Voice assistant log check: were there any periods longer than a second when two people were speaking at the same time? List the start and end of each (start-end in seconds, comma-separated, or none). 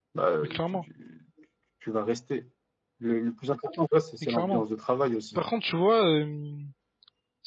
none